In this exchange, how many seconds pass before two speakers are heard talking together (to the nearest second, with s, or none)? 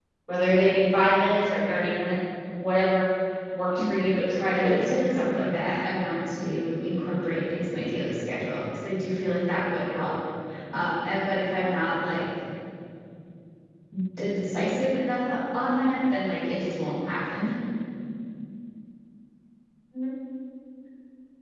4 s